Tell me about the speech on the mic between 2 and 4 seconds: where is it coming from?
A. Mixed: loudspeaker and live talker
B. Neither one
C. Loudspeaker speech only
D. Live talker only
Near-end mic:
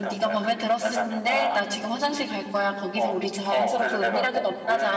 A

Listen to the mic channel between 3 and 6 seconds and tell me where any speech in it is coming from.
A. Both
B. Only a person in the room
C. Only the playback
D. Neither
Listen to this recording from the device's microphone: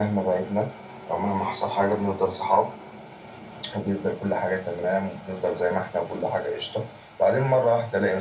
C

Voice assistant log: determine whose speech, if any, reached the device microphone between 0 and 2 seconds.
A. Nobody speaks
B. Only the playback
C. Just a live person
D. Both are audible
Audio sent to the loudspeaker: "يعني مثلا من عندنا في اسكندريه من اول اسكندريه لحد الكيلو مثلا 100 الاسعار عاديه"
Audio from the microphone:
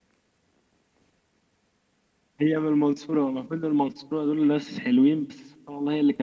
A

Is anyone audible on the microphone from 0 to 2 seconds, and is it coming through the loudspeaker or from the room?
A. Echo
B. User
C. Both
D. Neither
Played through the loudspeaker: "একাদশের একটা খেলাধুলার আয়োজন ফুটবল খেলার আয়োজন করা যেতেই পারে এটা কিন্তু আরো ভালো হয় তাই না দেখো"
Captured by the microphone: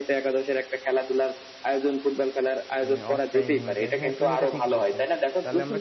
A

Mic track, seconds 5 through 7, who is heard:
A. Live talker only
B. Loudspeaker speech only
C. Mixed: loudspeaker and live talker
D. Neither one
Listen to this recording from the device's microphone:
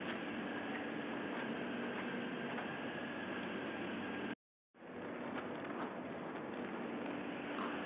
D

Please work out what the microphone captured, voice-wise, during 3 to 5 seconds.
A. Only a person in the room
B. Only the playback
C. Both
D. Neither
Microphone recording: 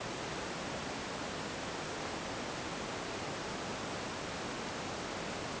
D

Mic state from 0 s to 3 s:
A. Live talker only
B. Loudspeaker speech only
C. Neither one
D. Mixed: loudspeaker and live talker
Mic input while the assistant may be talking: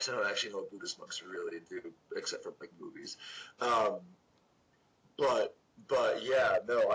B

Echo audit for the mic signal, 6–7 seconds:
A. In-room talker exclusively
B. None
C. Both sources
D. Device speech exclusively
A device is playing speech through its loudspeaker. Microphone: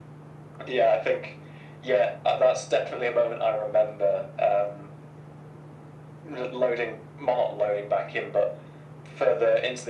D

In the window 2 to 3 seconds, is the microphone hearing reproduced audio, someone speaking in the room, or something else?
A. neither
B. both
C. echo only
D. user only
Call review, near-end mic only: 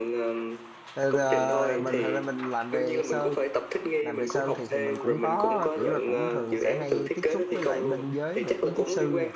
B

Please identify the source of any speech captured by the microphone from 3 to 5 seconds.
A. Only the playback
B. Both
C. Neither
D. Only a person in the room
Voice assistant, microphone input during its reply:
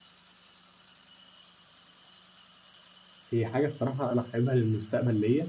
D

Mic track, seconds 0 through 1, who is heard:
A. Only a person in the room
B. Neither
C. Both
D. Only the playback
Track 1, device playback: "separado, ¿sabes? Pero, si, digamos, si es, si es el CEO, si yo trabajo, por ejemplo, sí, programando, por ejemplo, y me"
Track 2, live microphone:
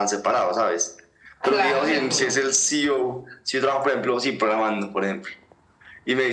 D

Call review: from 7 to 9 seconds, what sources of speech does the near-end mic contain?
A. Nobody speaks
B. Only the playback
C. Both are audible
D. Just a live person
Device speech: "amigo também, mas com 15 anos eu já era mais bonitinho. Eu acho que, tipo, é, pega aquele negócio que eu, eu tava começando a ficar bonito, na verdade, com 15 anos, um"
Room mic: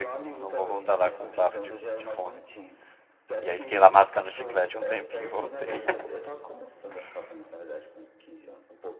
B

